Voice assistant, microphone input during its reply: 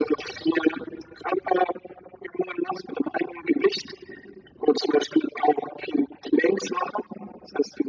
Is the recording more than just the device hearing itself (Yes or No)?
No